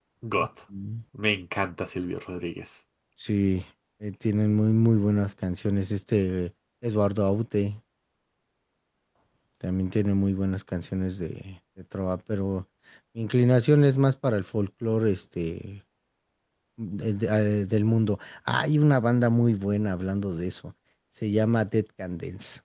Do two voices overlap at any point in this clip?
No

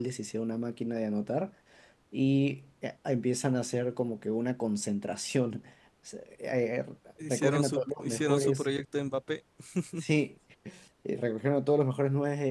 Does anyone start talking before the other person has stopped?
Yes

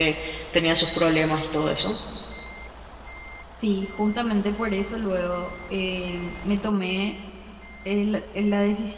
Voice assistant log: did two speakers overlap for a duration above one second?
No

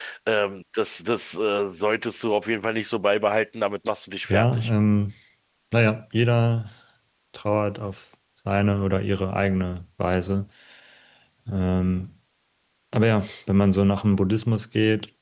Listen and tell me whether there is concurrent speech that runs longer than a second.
No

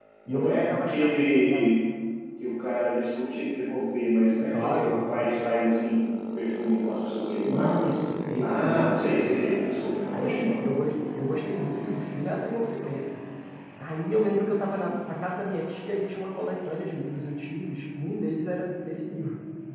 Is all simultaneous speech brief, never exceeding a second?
No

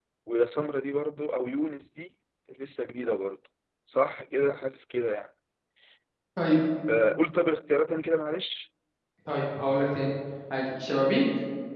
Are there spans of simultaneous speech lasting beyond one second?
No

